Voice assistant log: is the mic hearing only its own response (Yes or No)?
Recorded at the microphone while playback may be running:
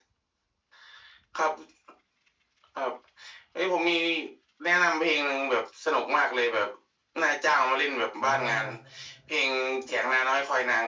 No